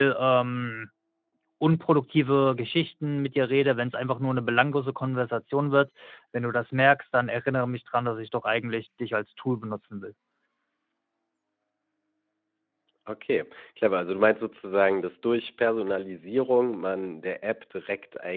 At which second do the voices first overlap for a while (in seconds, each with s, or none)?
none